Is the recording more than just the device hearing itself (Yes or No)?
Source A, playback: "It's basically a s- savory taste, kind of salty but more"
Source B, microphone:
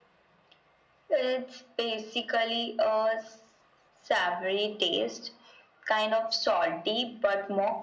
No